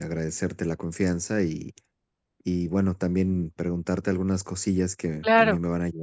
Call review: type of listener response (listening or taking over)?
listening